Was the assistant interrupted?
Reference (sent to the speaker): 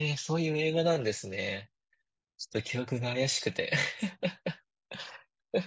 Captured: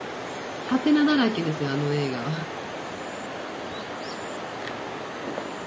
Yes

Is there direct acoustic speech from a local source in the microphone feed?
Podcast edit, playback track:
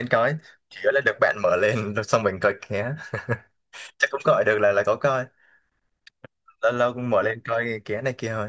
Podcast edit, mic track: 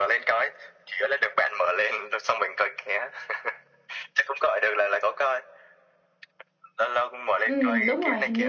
Yes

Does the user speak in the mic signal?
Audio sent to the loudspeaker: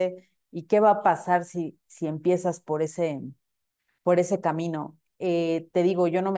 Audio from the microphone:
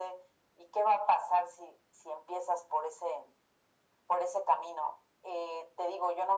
No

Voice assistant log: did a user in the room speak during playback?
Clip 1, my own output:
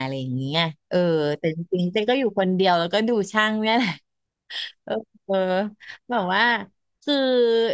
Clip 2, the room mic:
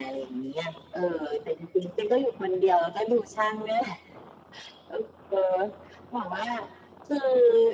No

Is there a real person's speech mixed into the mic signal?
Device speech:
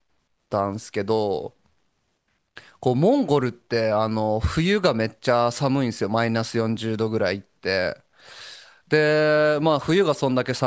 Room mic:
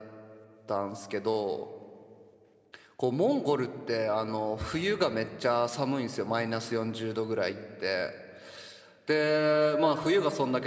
No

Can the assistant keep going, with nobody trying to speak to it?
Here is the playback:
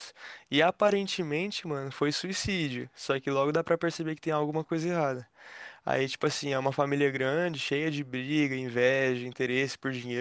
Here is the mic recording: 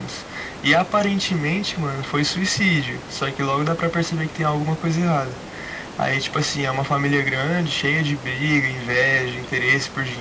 Yes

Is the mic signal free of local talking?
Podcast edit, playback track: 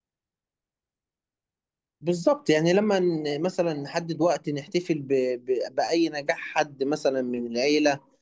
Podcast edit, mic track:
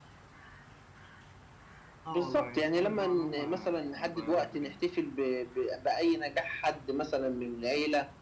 No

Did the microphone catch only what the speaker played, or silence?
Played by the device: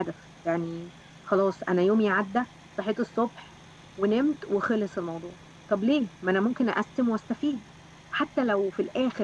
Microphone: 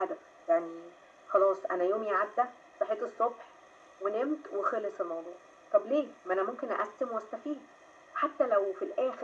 Yes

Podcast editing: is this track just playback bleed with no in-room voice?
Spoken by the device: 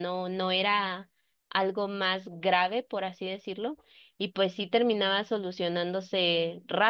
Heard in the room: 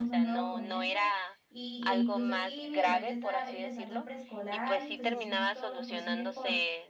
No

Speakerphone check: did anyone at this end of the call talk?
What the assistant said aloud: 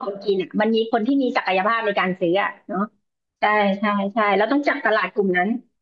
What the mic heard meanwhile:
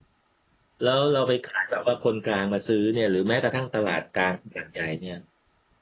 Yes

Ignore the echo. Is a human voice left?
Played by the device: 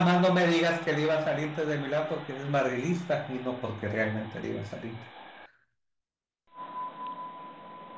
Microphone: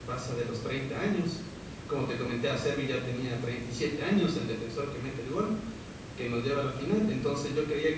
Yes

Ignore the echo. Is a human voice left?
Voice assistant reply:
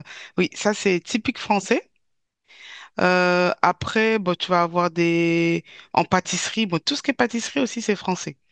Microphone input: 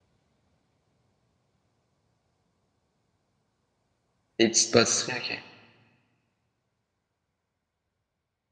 Yes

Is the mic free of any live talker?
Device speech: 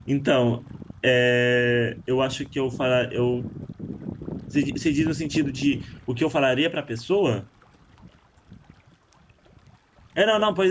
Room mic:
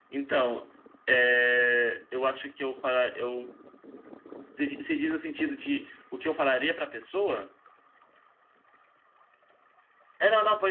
Yes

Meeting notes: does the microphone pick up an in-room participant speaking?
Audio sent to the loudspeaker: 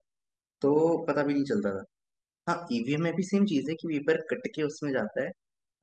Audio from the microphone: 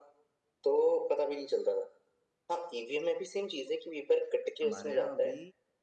Yes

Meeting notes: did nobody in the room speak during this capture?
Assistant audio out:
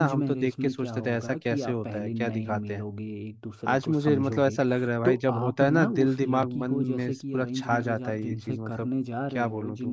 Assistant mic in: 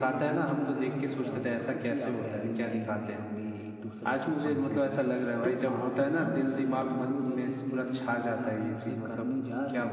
Yes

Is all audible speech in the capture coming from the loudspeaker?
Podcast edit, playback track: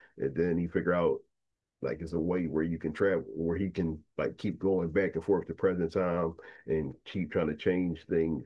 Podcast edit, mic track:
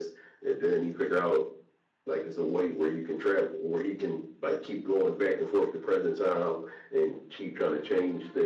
Yes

